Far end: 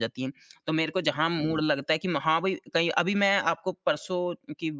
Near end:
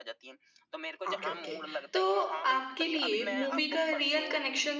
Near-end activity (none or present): present